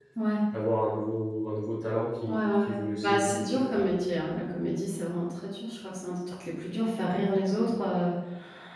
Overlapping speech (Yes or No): Yes